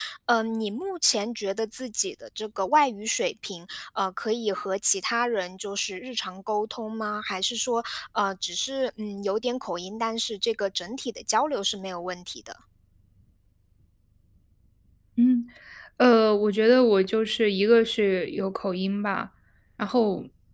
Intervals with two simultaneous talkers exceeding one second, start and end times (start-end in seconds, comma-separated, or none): none